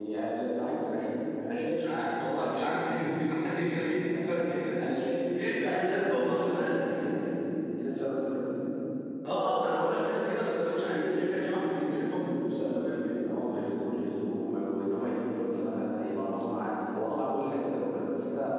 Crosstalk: present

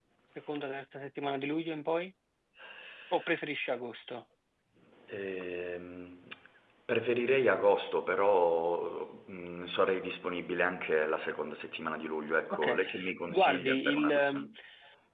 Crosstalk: present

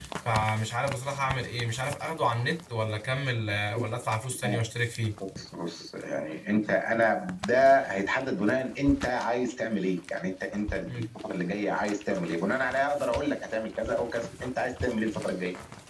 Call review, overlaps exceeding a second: none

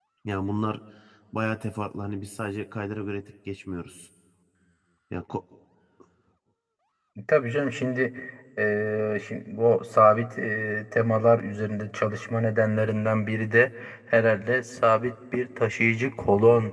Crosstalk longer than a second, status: none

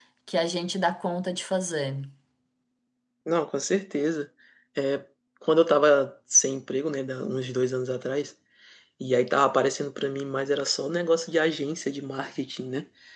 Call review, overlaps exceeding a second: none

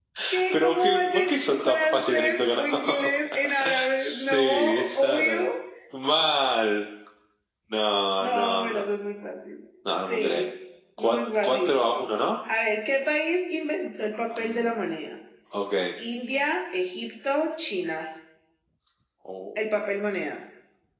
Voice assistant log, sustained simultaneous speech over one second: present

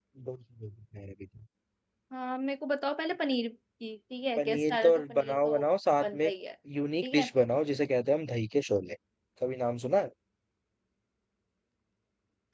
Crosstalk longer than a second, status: present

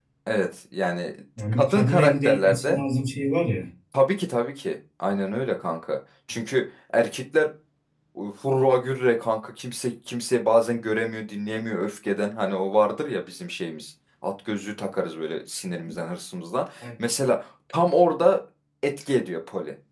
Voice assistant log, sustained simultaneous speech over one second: present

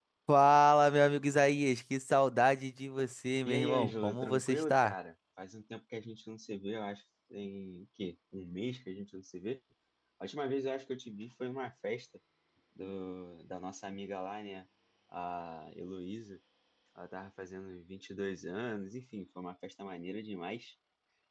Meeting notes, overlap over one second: present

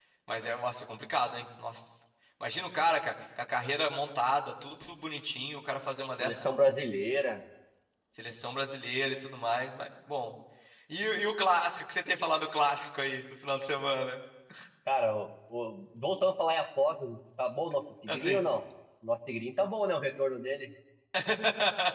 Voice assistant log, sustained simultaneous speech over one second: none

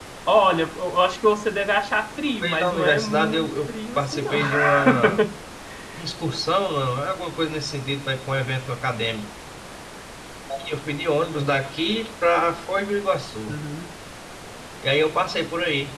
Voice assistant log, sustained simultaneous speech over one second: present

